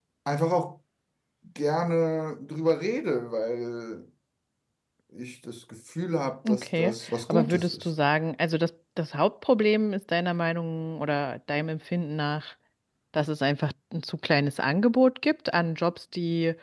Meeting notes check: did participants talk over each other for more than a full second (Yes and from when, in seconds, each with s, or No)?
Yes, from 6.5 s